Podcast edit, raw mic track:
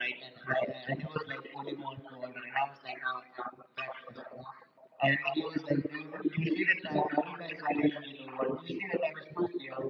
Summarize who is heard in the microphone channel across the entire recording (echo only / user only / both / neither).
echo only